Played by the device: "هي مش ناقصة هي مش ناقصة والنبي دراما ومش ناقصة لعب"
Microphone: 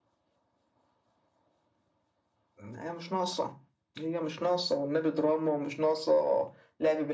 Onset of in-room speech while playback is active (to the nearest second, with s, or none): none